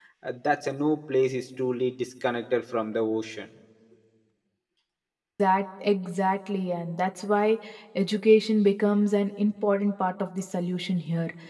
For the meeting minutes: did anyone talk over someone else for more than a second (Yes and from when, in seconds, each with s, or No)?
No